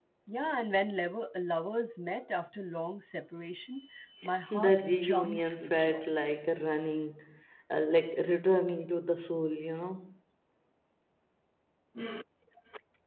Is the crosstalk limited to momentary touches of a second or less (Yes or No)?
No